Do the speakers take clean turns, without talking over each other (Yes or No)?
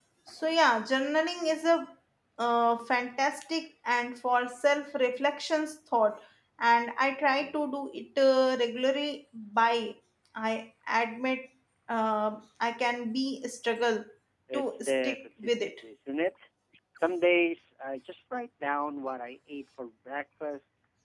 No